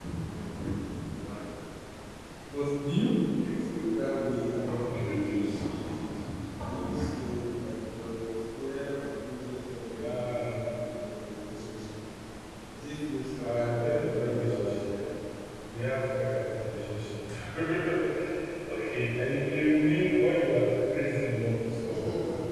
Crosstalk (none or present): present